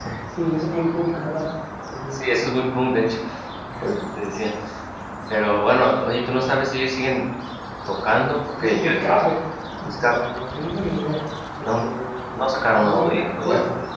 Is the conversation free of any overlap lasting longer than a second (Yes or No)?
No